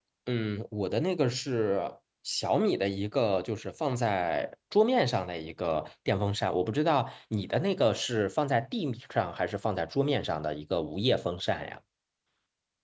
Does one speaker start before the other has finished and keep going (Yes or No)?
No